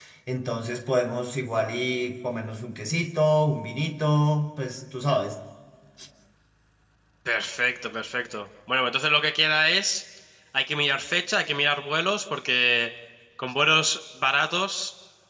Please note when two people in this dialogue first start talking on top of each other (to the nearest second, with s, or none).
none